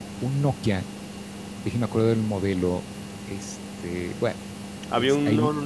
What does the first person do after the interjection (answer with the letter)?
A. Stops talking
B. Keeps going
A